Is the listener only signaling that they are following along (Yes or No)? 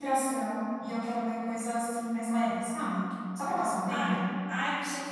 No